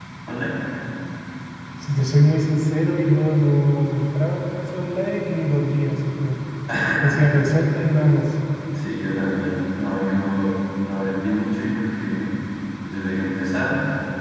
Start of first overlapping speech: none

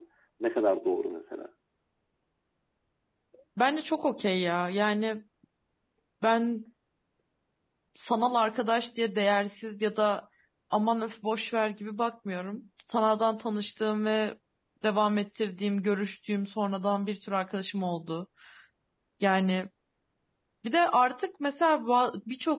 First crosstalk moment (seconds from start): none

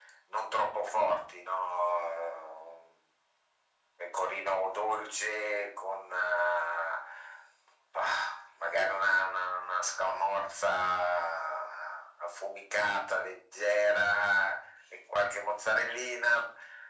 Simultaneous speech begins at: none

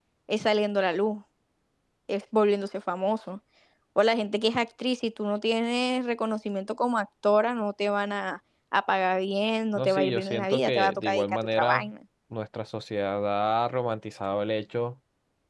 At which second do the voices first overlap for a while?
9.8 s

